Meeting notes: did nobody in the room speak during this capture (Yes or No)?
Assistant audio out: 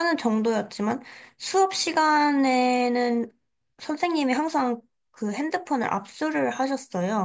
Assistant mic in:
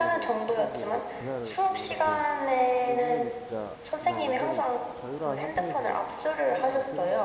No